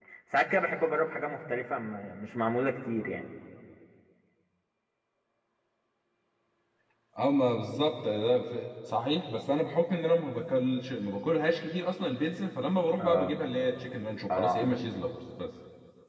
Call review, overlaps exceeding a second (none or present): none